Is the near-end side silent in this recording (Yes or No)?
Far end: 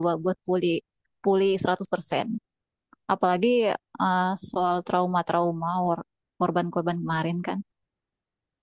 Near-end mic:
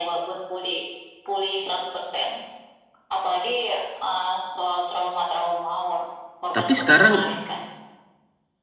No